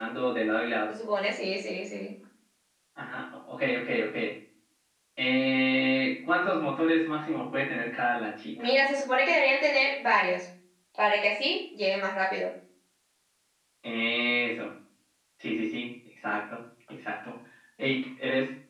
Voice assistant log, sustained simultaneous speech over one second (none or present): none